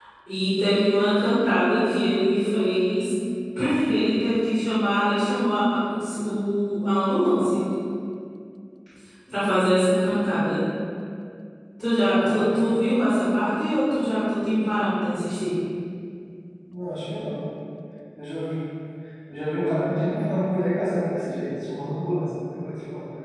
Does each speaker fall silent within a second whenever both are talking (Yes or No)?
Yes